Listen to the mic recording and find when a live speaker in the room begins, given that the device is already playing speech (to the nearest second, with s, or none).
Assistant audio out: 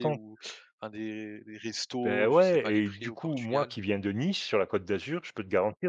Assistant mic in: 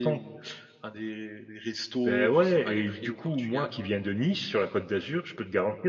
none